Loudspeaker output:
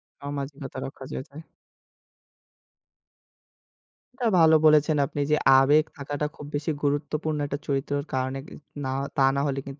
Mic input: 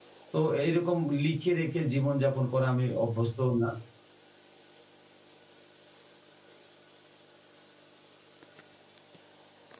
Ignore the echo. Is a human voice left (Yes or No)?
Yes